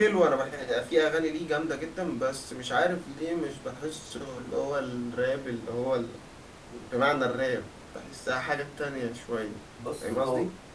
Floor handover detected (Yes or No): Yes